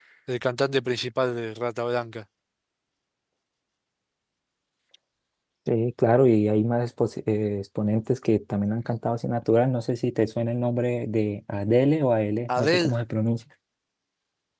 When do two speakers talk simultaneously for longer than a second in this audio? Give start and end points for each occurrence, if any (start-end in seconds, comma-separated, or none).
none